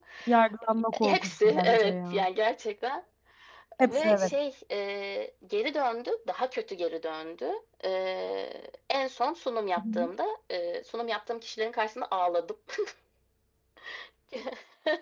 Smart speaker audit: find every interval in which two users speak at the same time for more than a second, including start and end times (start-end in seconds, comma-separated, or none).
1.0-2.2